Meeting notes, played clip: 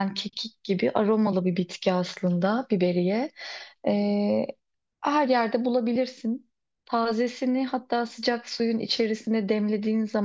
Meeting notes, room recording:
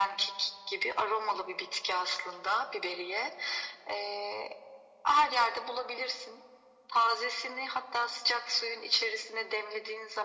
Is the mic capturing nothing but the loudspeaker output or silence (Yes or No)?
Yes